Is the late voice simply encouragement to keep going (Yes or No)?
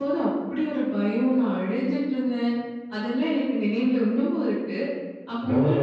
No